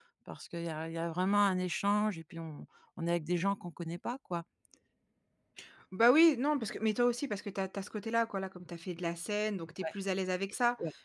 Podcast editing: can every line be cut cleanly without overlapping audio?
Yes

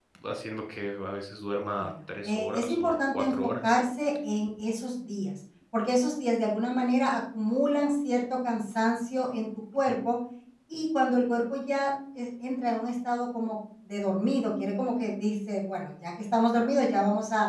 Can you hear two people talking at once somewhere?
Yes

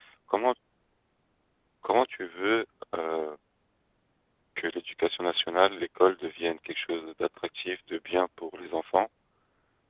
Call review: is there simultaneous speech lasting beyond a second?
No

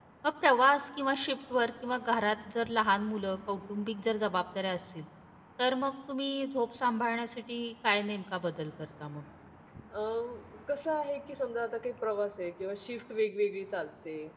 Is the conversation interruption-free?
Yes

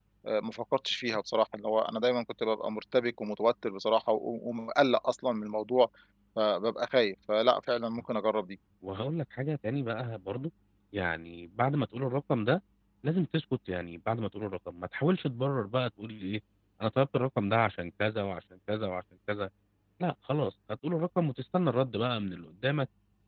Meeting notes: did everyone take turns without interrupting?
Yes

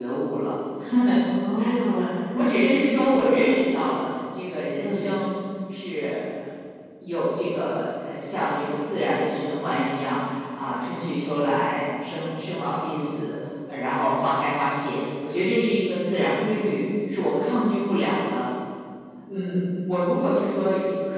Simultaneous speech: Yes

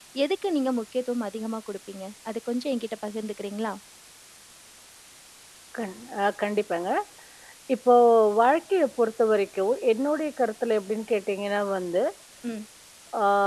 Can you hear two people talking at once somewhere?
No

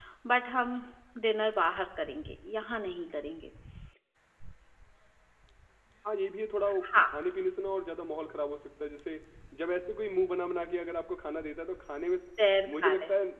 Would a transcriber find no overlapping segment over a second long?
Yes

